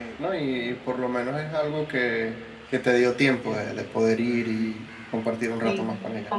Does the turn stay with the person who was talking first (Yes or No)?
No